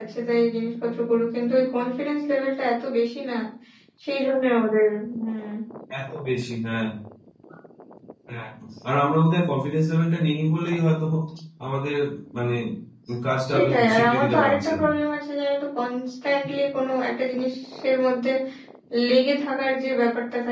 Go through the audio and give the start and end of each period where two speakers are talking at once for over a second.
13.5-14.8

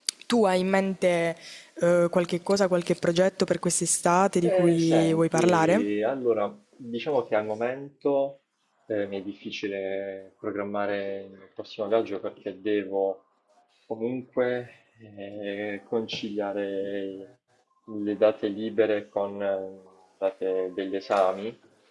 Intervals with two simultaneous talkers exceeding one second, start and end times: 4.4-5.8

